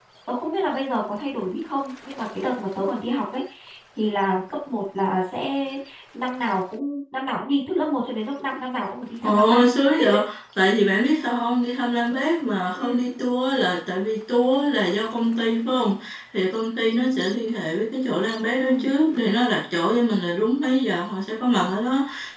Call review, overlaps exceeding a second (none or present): none